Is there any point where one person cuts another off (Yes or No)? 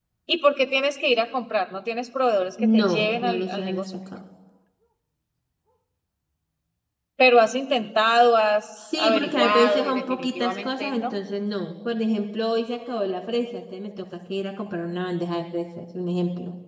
Yes